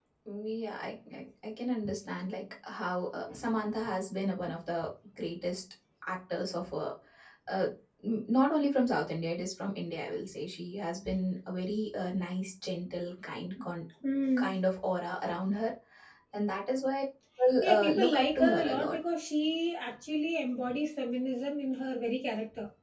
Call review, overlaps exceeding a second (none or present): present